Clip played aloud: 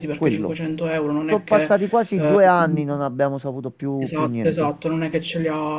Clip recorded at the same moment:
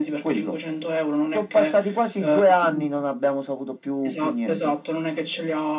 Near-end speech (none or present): none